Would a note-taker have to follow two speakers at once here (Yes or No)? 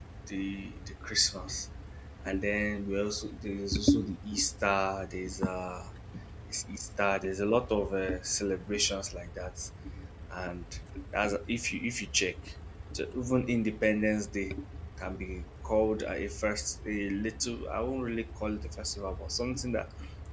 No